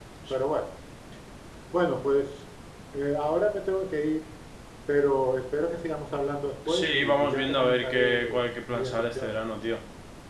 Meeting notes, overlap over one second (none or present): present